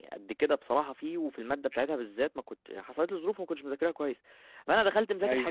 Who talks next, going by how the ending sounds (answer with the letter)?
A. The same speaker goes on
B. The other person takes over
A